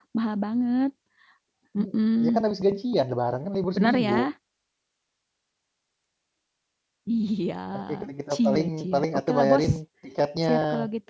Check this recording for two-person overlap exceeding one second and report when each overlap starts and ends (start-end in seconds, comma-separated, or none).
8.3-9.7